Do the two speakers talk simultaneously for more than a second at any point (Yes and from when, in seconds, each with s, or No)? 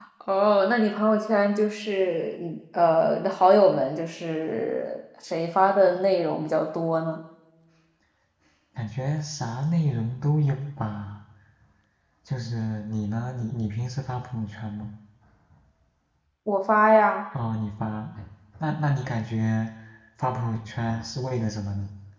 No